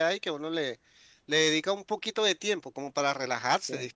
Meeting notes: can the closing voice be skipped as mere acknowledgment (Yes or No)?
Yes